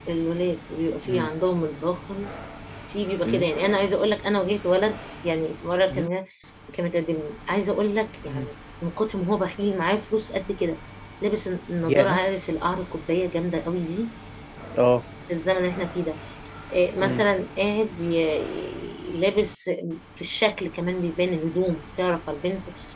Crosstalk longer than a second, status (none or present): none